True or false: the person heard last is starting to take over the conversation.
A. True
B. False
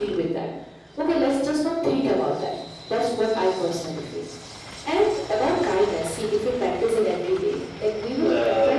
B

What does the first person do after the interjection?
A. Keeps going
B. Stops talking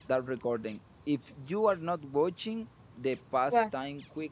A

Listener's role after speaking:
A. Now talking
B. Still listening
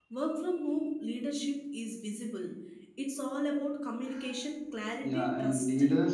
A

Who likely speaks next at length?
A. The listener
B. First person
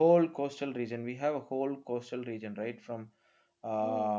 B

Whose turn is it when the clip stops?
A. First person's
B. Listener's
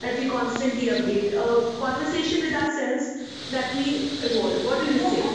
B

